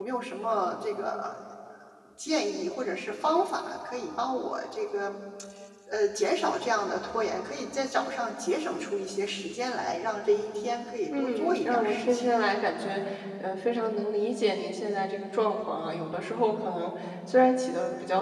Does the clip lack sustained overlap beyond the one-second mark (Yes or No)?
No